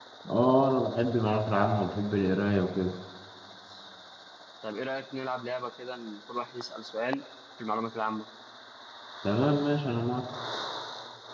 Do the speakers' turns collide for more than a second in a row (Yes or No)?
No